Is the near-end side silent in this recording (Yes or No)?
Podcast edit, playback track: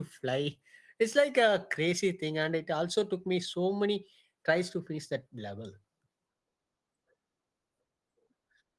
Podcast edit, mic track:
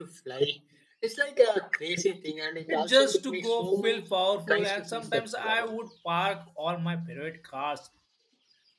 No